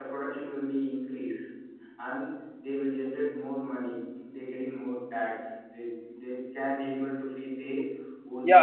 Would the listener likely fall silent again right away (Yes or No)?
No